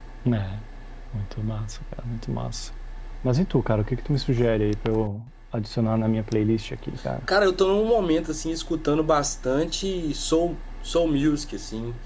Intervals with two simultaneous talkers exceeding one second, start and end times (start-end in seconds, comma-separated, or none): none